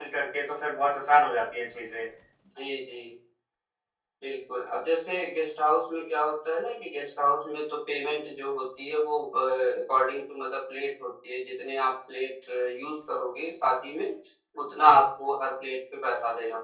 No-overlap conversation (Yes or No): Yes